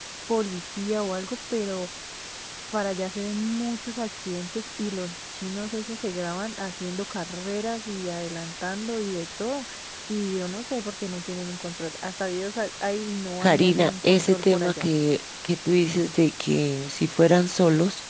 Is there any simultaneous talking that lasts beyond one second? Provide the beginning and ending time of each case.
13.4-14.9

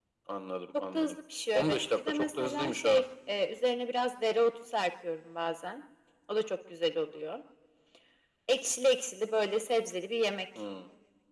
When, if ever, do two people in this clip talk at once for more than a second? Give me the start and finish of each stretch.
1.6-3.0

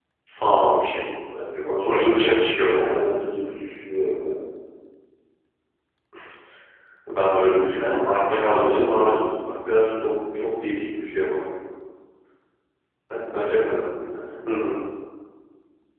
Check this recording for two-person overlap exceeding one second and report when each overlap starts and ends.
1.8-3.0, 7.6-9.2

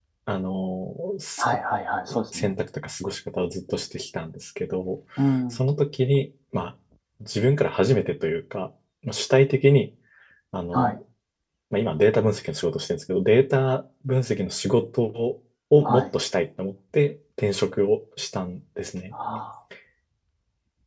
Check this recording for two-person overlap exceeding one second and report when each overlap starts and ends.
none

